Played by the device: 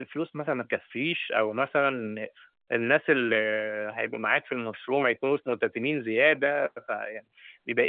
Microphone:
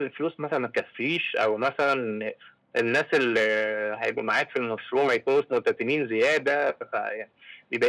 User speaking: No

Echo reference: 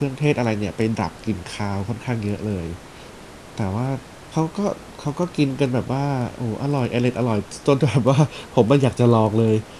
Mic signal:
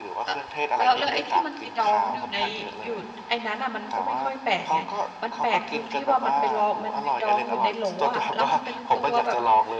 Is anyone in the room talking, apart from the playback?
Yes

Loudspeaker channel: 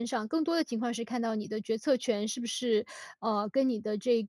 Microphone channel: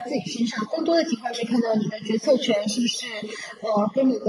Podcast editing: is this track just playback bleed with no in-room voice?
Yes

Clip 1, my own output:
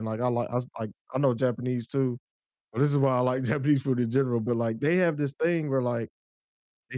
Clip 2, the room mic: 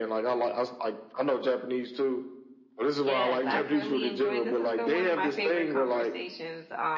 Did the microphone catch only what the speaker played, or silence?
No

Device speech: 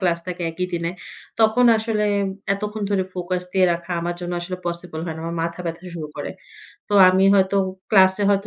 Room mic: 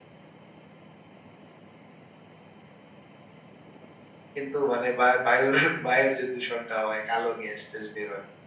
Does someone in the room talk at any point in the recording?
Yes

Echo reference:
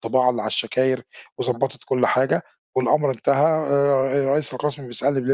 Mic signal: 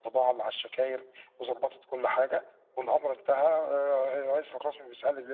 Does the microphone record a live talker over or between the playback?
No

